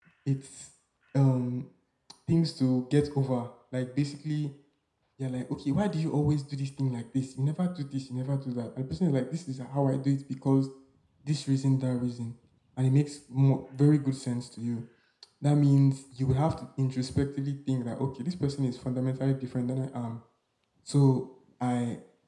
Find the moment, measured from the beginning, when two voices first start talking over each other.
none

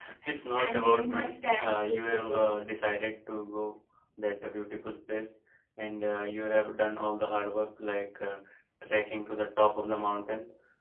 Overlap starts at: 0.6 s

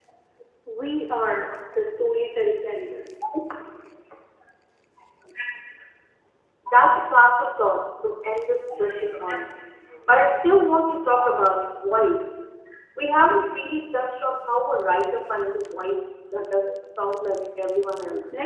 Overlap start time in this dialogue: none

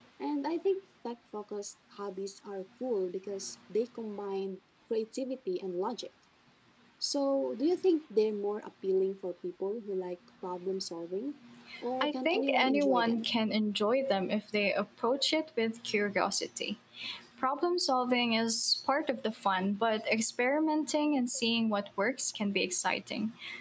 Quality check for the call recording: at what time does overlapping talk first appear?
12.0 s

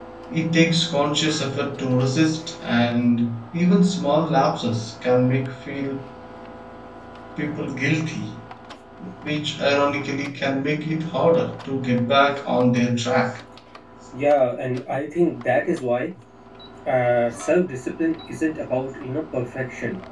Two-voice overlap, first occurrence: none

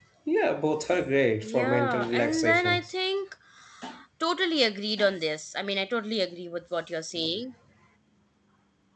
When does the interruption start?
1.4 s

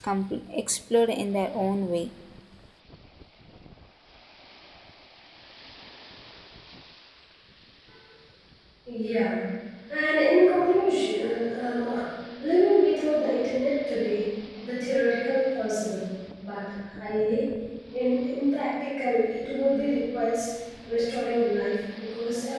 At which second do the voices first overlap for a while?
none

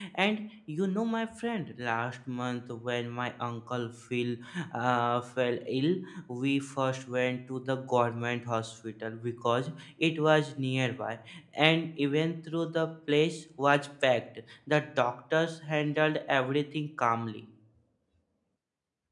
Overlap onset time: none

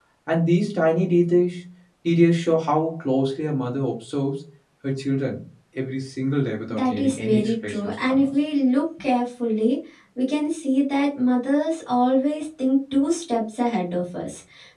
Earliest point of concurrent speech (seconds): 6.7 s

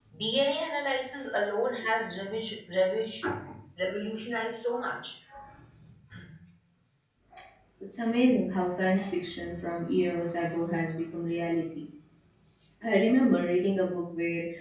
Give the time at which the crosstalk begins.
none

